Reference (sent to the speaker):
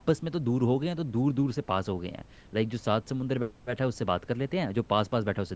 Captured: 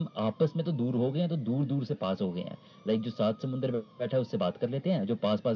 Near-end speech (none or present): none